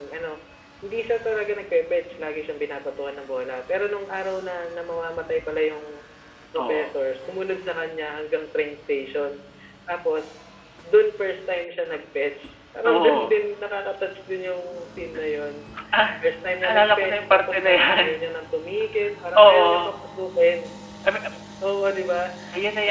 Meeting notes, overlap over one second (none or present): present